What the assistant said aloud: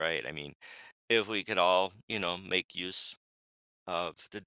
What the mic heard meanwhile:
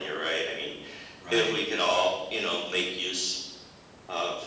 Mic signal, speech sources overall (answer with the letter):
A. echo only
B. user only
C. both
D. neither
C